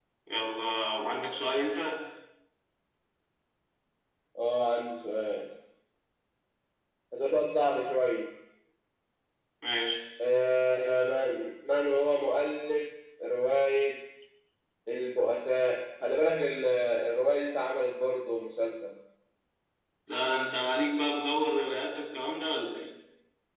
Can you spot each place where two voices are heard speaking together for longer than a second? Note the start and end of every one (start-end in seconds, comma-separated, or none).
none